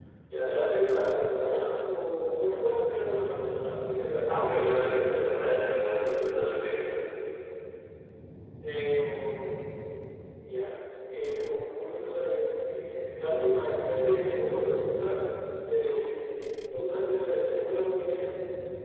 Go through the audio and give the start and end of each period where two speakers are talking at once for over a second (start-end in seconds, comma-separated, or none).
4.2-5.6